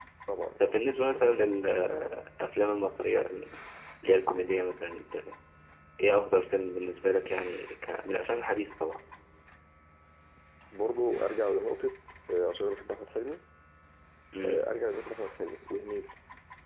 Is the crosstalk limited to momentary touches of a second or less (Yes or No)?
Yes